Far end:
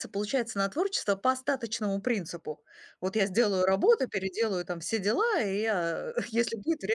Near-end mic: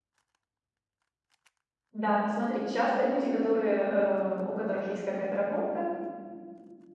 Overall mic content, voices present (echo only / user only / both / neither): user only